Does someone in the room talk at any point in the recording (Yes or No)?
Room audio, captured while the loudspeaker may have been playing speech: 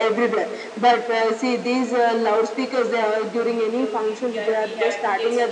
Yes